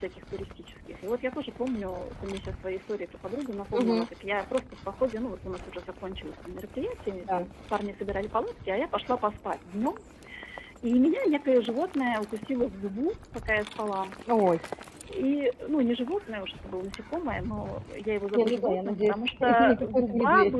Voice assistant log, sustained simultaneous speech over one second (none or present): present